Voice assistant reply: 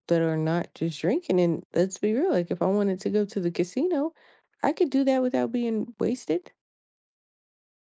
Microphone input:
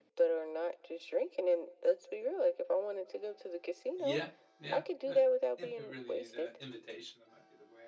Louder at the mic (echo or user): echo